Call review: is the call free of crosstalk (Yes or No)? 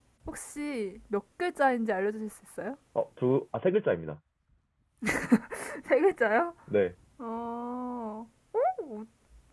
Yes